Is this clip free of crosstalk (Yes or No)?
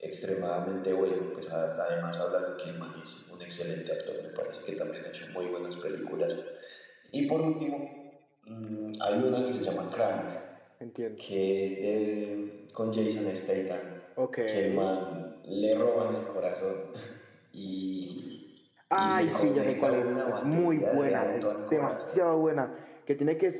No